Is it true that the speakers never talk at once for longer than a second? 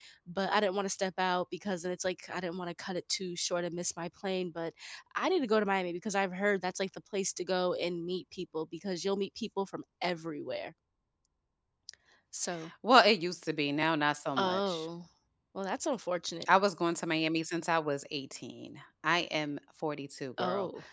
Yes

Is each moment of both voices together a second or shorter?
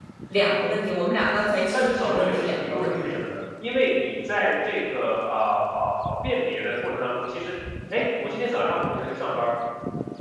No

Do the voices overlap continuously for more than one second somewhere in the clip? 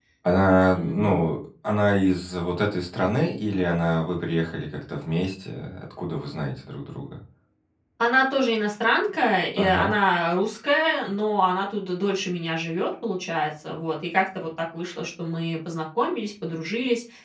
No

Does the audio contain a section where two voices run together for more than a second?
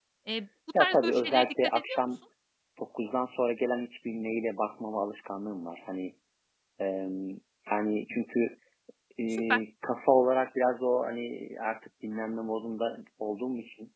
Yes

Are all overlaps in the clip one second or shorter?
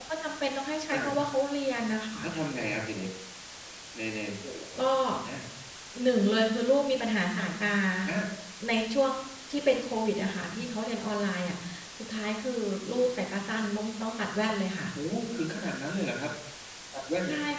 Yes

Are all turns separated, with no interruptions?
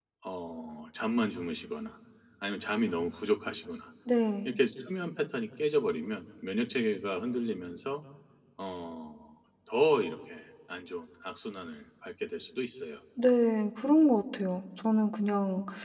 Yes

